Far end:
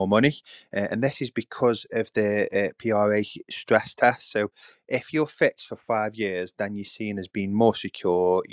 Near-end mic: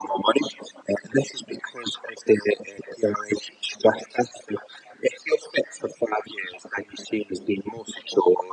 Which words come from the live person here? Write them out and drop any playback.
none

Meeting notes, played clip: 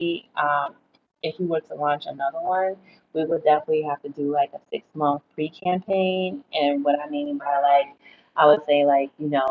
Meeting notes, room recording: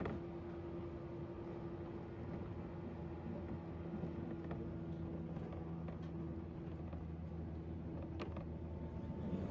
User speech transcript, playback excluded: none

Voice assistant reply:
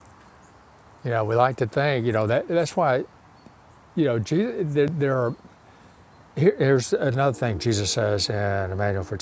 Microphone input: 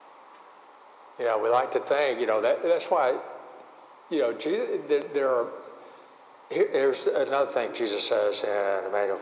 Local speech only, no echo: none

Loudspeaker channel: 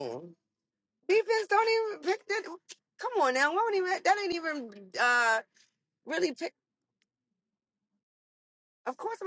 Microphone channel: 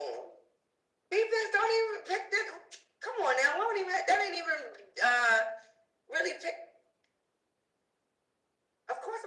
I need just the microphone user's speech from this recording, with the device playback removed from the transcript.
none

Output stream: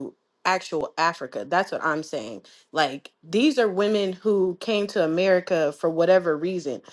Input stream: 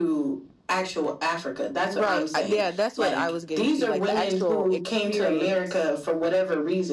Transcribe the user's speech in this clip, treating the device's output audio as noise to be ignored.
Right. I- Yeah, that's what I was getting to, like the actual experience.

